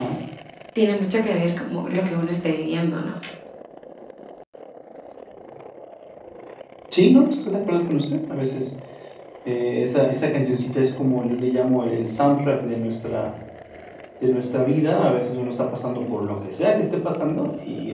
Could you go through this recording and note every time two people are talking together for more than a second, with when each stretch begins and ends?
none

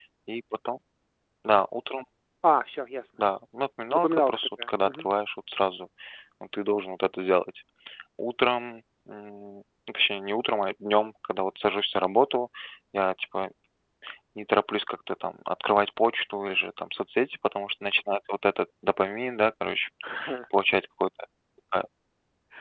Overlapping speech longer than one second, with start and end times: 3.9-5.1

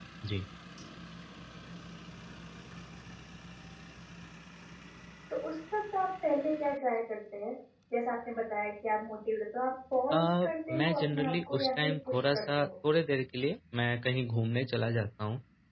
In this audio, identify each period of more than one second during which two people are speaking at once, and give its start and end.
10.7-12.7

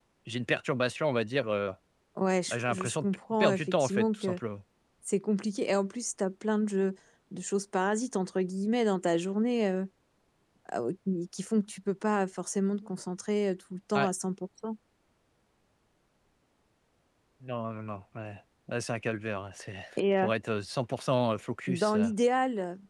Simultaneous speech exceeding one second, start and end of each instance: 2.5-4.4

